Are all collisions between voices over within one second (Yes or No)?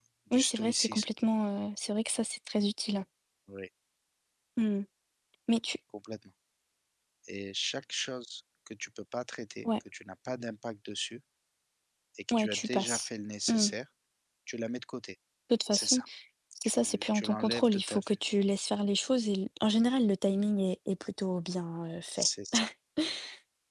No